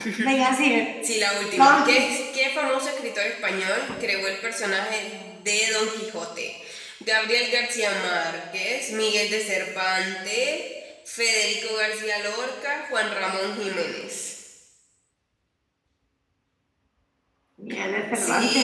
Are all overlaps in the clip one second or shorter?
Yes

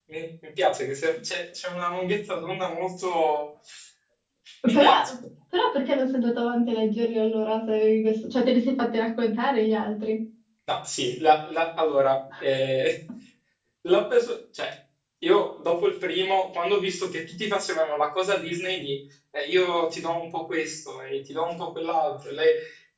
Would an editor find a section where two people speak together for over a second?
No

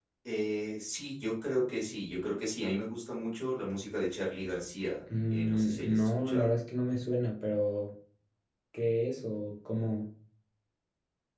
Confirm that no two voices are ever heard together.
No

